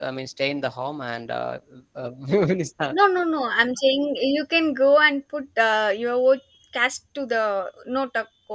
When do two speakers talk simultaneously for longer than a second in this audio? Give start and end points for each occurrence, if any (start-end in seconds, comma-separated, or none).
none